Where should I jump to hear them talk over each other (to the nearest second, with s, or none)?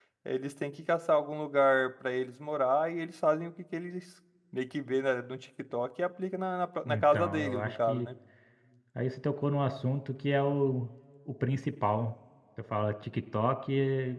7 s